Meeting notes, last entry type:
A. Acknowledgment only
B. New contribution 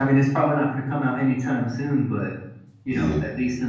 A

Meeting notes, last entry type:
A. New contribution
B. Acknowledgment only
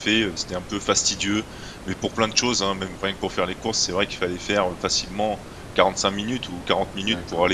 A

